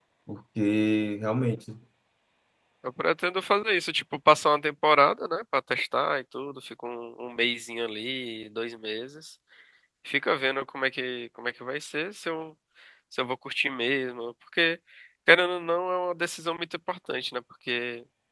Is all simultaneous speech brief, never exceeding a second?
Yes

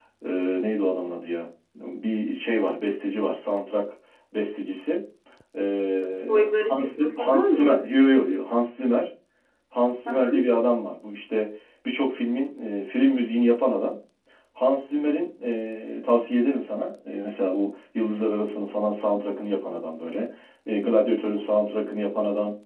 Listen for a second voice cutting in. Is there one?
Yes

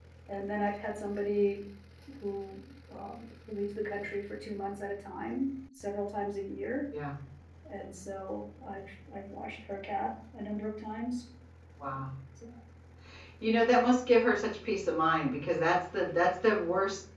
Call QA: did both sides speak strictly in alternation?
Yes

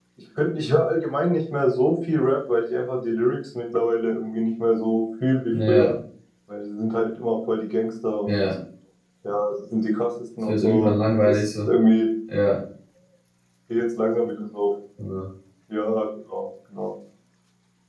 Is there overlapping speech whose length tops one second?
Yes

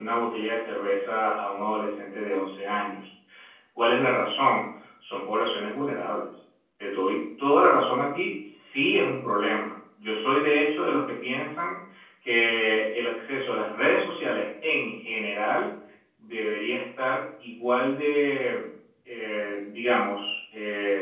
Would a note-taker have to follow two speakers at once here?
No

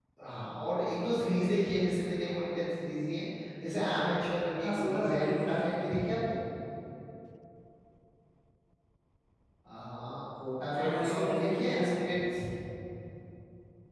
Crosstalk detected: Yes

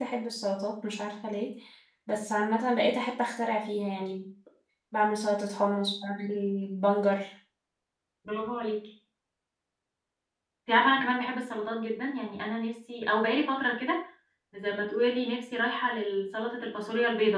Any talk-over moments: No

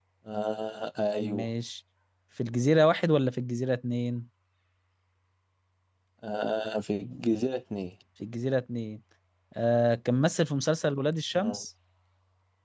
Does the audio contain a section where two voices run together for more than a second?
No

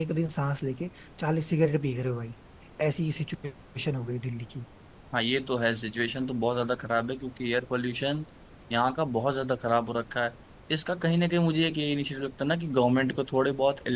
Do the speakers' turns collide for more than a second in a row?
No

